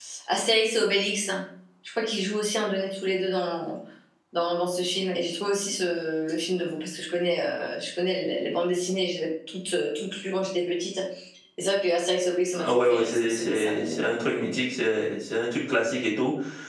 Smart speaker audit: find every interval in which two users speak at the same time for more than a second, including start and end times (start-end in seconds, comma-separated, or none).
12.5-14.0